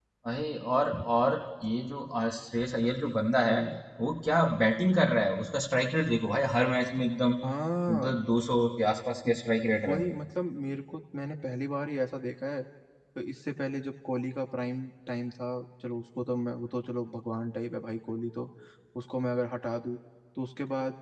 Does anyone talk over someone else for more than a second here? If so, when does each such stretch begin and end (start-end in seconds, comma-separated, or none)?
none